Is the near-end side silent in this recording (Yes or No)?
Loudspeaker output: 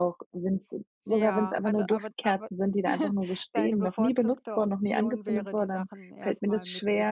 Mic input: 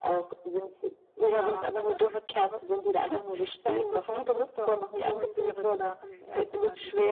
Yes